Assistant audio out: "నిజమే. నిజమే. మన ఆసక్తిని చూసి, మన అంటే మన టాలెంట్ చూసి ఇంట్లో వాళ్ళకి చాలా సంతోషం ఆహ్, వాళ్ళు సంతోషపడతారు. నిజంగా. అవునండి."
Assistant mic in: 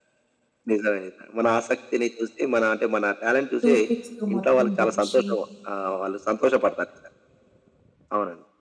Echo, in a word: present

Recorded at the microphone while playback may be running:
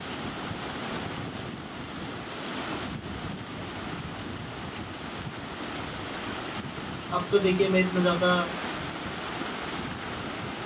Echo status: none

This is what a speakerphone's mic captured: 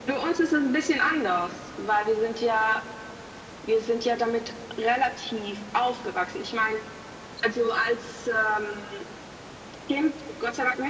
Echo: present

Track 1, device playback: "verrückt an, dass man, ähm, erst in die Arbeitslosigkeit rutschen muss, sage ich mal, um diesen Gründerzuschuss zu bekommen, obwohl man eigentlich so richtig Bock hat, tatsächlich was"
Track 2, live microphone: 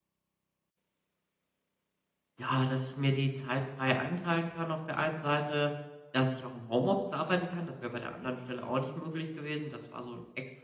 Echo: none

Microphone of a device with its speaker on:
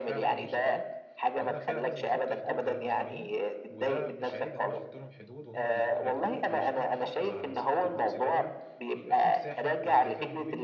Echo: present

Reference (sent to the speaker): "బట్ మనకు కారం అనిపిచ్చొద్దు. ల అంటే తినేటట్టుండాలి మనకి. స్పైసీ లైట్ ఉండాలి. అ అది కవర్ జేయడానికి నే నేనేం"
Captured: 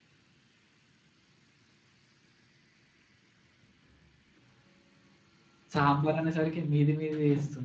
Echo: none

